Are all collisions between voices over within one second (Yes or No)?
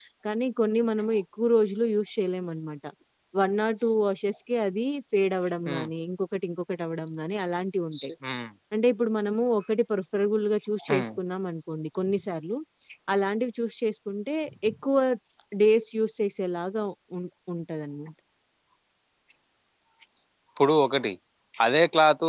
Yes